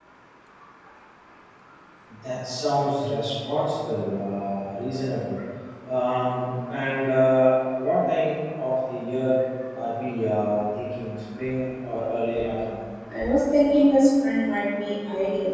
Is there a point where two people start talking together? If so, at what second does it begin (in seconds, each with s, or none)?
none